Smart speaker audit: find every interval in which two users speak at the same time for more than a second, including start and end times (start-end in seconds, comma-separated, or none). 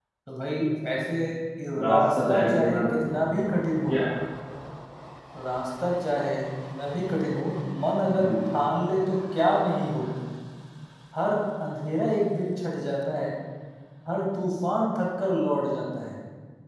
1.8-3.0